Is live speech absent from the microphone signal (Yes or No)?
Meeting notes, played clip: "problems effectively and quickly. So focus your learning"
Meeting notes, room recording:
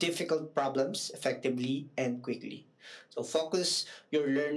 Yes